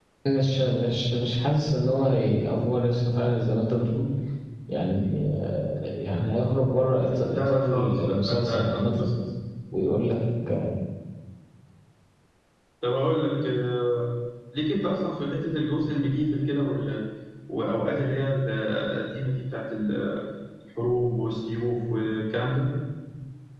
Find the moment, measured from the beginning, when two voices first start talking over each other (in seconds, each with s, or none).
7.3 s